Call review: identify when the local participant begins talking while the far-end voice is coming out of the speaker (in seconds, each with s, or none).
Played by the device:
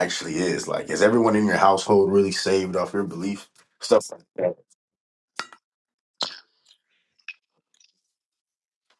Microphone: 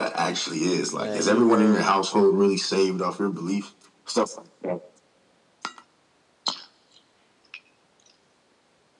0.9 s